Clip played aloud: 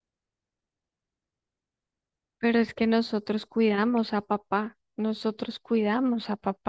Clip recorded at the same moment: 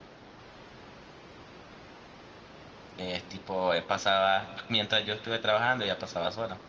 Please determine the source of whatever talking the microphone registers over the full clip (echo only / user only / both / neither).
user only